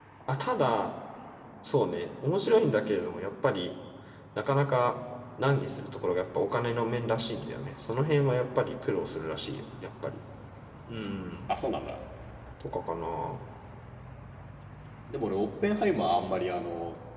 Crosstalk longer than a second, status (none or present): none